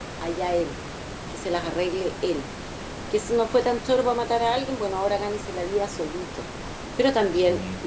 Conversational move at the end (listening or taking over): listening